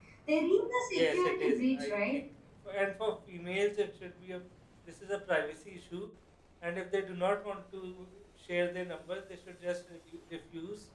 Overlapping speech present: Yes, from 0.9 s

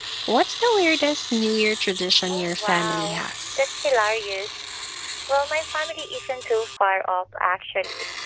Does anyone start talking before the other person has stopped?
Yes, from 2.3 s

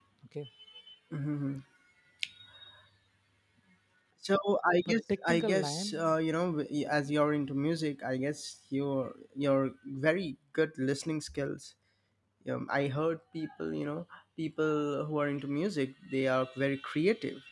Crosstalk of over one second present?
Yes, from 4.8 s

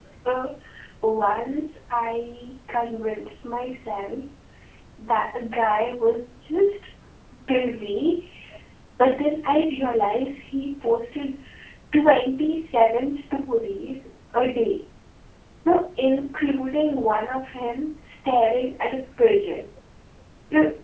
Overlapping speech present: No

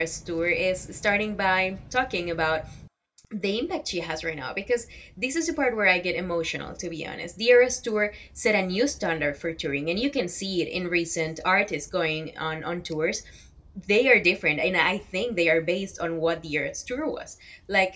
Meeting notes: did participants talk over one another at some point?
No

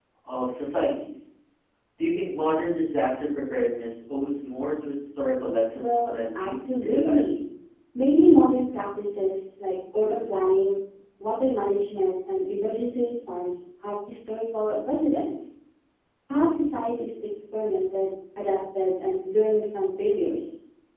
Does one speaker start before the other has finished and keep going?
Yes, from 5.8 s

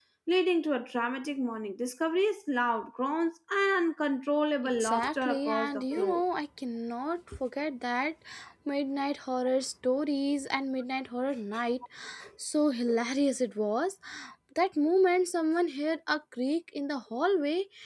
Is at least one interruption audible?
Yes, from 4.6 s

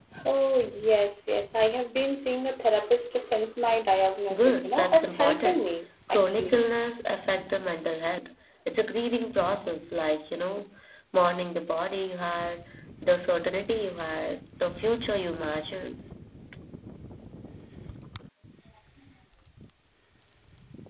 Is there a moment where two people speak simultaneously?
Yes, from 4.3 s

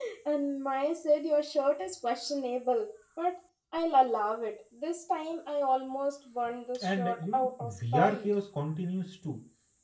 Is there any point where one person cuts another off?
Yes, from 6.8 s

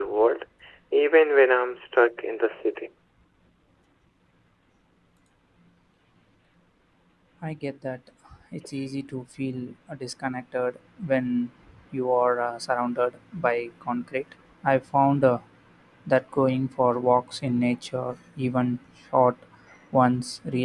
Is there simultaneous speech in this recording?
No

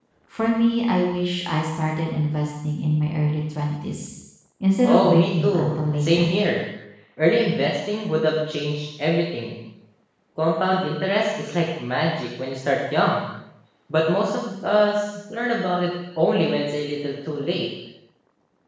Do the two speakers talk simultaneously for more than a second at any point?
Yes, from 4.8 s

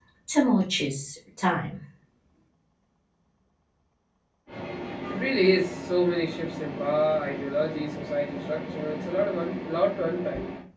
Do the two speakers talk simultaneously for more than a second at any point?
No

